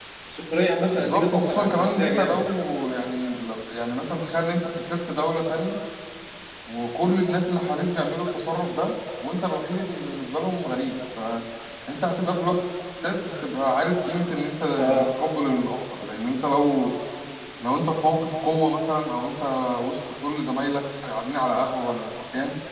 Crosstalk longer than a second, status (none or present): present